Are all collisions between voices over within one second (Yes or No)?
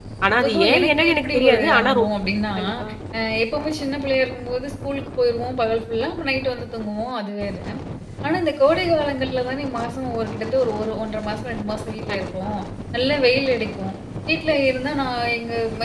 No